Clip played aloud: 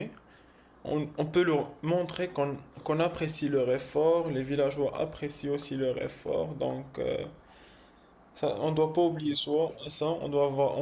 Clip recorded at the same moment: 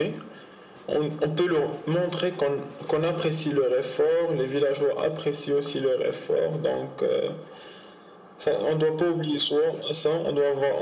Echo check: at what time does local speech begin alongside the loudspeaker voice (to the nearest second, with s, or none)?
none